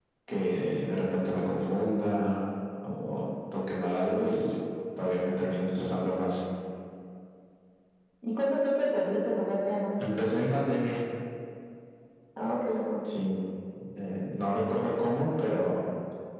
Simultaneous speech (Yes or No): No